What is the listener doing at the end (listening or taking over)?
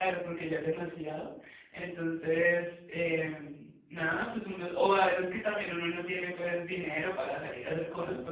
listening